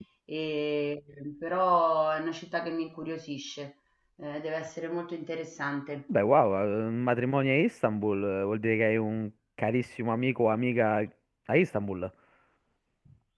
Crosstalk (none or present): none